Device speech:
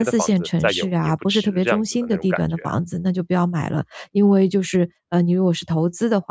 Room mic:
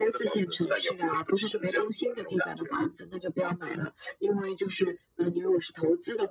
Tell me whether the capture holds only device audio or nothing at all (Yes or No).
Yes